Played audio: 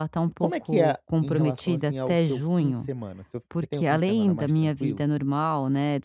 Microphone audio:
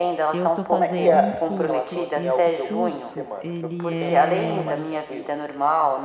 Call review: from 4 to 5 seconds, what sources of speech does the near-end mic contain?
both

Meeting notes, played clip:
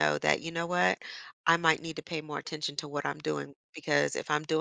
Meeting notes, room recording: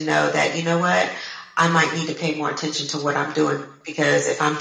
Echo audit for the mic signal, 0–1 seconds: echo only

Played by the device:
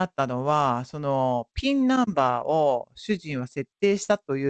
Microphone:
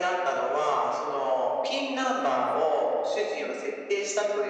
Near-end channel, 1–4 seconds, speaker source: echo only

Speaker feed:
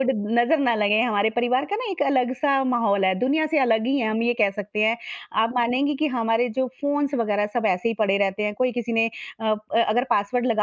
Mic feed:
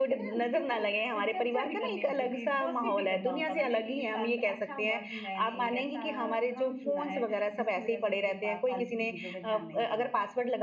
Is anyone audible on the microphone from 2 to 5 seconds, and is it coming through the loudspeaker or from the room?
both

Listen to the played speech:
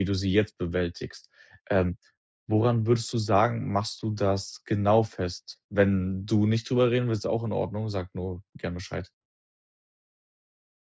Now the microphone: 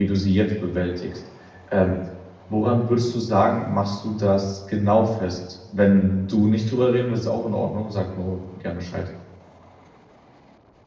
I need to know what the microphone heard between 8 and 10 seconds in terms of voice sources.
echo only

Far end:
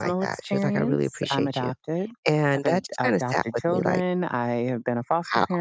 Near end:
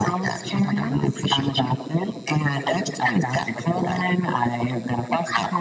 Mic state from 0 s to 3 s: echo only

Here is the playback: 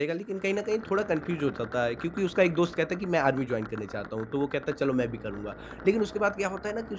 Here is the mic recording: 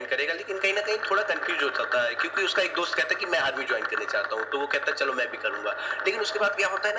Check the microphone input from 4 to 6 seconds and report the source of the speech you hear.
echo only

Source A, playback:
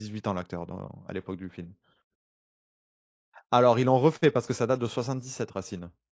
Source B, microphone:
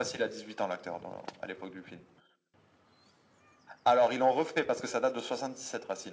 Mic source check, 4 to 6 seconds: echo only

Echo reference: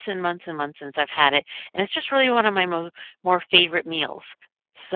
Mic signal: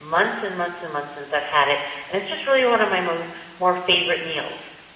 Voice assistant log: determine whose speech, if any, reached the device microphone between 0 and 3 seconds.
echo only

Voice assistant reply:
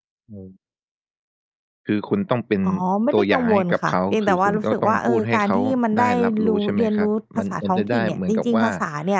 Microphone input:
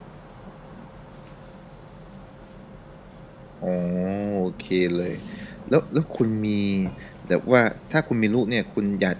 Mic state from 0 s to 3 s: neither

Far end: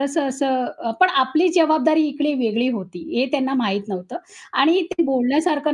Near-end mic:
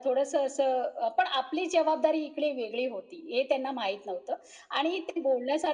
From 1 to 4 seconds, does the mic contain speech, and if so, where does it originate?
echo only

